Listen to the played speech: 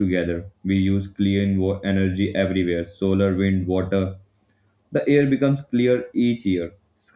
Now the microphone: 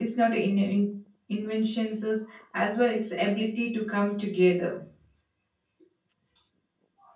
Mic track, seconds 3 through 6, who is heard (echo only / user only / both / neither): user only